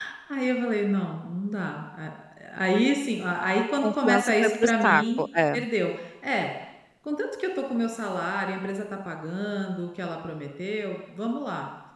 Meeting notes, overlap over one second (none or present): present